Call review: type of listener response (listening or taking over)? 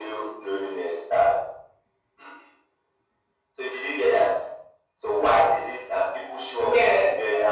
listening